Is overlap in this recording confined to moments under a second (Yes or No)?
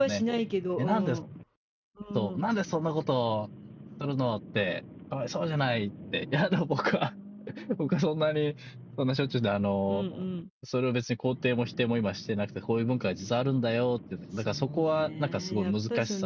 No